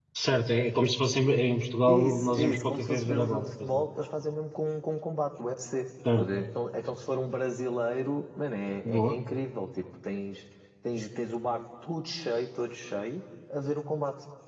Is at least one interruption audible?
Yes, from 1.9 s

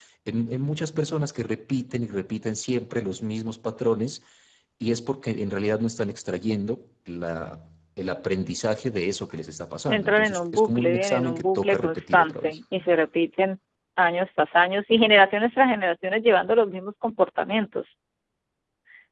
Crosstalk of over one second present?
Yes, from 9.9 s

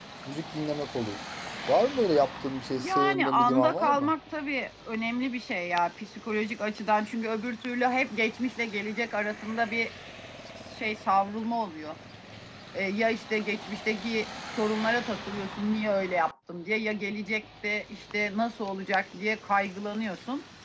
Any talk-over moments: Yes, from 2.8 s

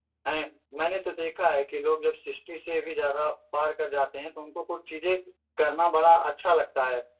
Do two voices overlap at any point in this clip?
No

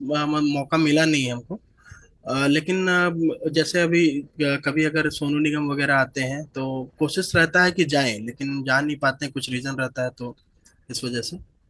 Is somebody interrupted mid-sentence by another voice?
No

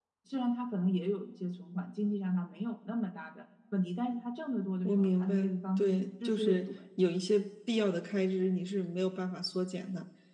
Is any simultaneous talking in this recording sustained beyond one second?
Yes, from 4.8 s

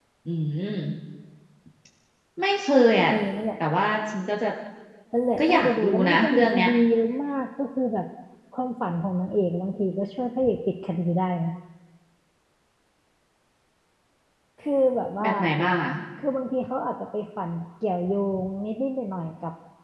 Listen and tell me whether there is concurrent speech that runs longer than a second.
Yes, from 5.4 s

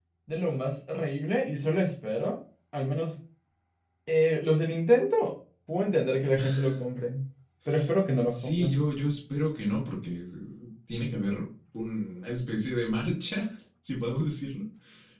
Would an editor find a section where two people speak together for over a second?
No

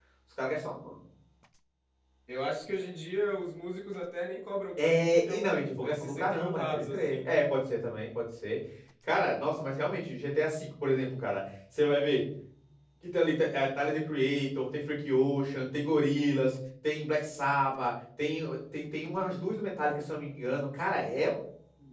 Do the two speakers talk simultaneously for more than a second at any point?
Yes, from 4.8 s

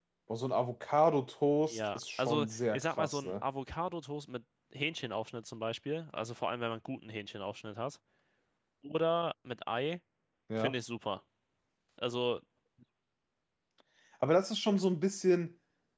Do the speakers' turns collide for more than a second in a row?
Yes, from 1.7 s

